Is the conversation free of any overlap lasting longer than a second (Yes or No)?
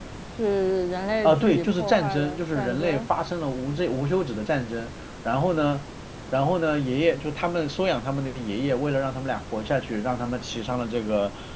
No